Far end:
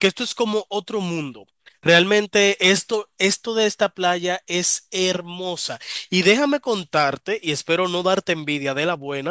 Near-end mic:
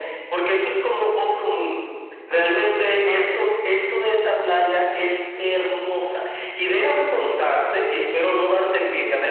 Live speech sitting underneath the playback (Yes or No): Yes